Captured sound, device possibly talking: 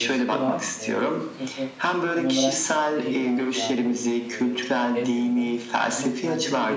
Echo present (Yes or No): Yes